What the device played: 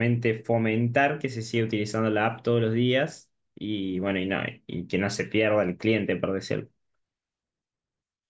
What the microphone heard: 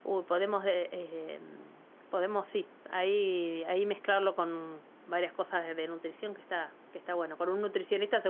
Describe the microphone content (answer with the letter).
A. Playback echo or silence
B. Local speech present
B